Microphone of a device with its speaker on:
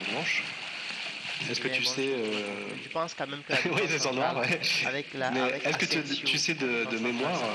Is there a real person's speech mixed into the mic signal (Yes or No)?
Yes